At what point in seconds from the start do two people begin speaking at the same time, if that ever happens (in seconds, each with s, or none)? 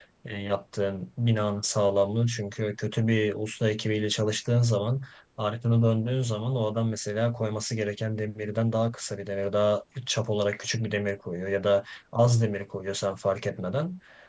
none